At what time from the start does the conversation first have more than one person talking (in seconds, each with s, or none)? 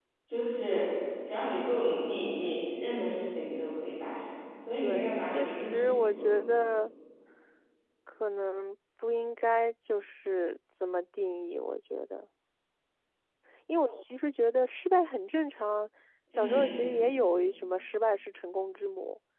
4.8 s